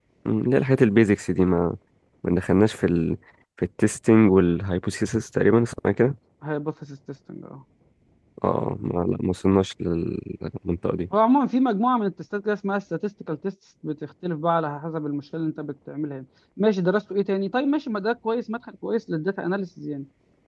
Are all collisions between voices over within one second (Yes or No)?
Yes